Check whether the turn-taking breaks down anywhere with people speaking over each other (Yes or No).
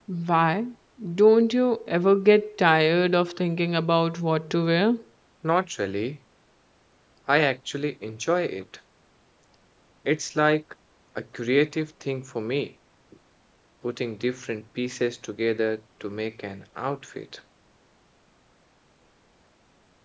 No